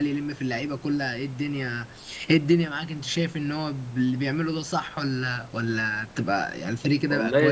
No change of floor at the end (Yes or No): No